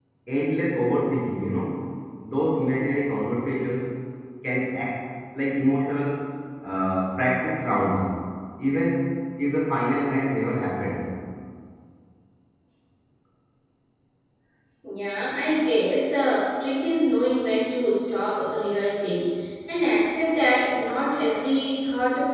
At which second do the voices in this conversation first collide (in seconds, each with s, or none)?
none